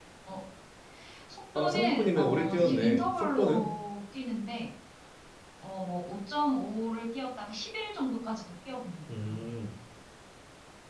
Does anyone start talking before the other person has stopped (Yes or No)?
Yes